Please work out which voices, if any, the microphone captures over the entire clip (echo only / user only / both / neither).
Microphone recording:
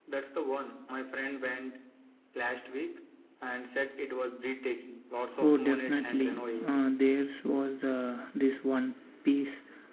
both